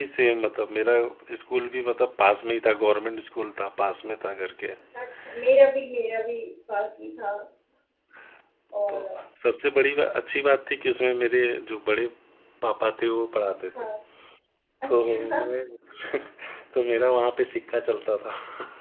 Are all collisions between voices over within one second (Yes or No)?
Yes